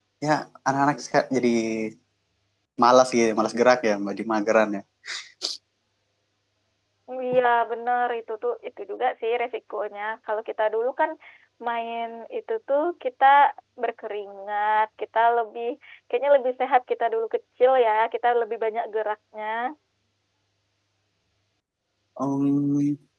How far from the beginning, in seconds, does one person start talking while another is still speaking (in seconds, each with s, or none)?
none